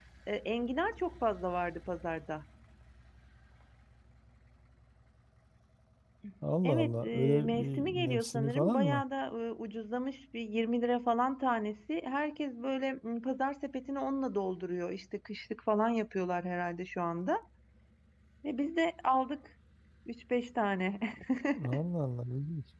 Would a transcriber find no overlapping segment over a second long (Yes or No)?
No